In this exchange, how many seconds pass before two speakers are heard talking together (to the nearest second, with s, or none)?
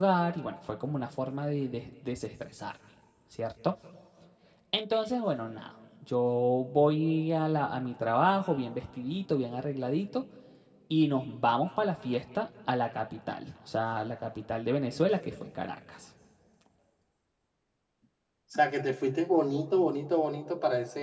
none